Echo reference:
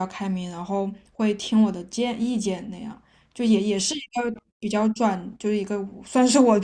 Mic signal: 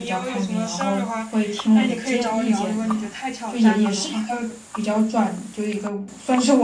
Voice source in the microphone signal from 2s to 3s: both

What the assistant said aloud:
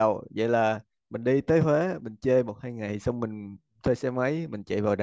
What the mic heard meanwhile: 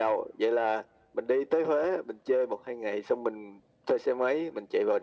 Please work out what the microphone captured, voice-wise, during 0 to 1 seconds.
echo only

